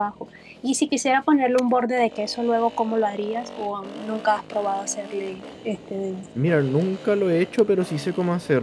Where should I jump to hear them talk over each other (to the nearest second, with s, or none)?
none